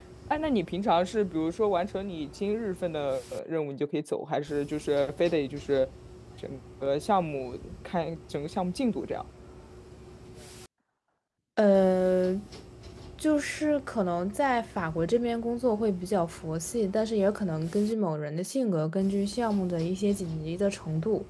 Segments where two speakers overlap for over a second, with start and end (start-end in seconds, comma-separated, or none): none